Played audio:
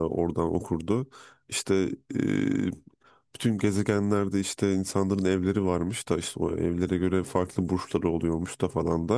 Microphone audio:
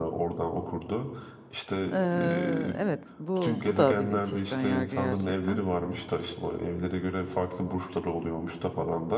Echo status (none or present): present